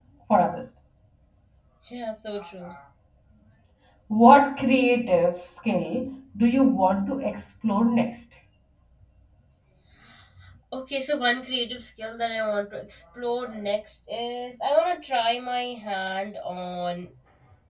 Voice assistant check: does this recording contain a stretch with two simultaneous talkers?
No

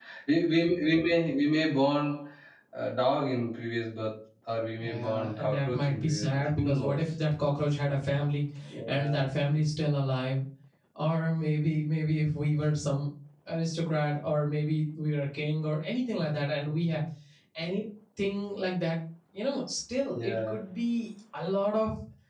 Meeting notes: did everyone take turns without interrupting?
No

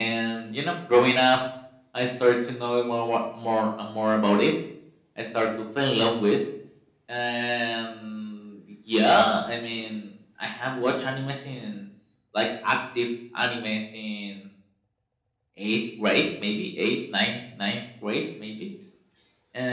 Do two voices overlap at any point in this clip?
No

